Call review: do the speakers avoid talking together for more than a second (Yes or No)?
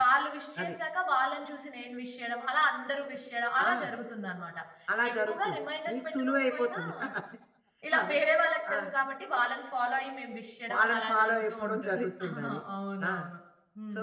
No